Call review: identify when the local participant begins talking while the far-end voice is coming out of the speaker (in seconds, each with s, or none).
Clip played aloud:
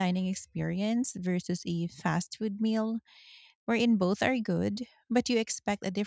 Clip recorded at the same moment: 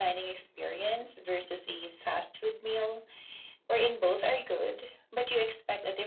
none